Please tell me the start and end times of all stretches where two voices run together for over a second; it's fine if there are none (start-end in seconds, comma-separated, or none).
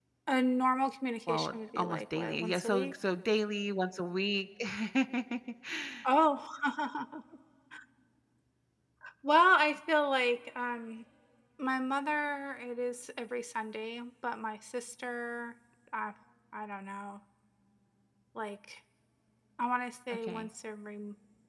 1.3-2.9